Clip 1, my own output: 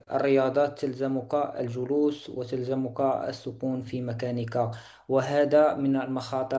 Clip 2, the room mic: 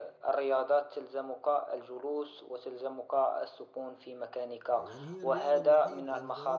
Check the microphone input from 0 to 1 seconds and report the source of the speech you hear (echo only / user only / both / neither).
echo only